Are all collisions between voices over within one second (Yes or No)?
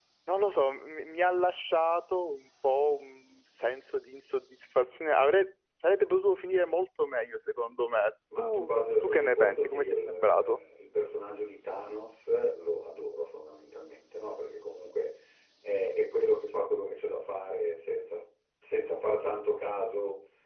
No